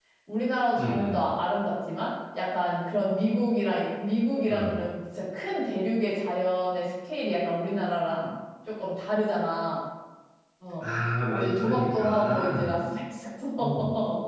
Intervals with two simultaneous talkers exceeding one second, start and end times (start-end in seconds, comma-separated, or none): 11.3-12.8